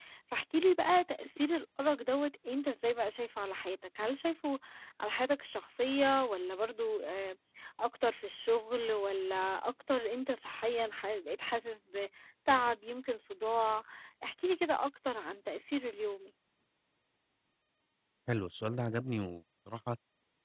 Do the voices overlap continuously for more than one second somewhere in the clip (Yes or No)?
No